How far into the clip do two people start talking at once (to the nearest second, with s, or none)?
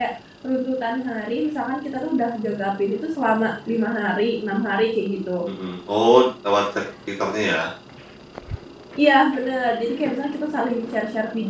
none